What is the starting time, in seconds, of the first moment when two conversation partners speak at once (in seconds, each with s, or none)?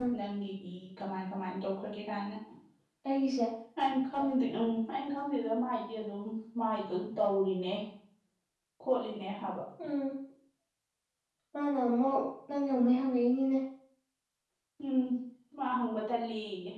none